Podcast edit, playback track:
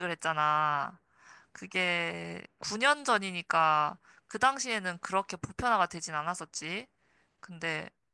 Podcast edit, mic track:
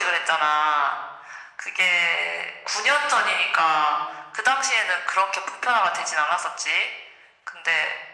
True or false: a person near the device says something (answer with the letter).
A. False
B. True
A